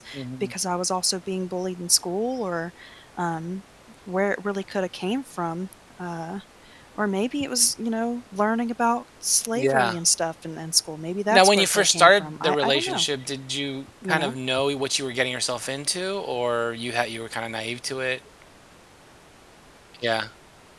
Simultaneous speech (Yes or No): Yes